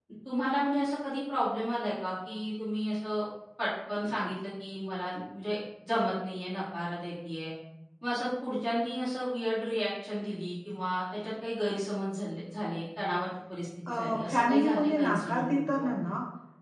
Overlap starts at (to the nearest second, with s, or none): 14 s